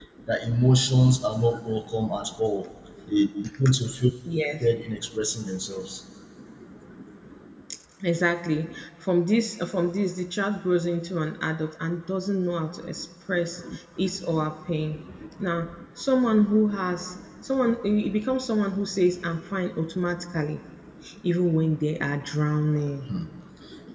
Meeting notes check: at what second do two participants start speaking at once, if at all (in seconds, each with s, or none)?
none